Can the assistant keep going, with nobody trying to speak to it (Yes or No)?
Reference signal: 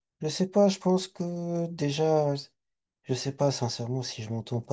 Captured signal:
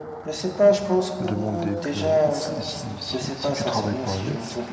No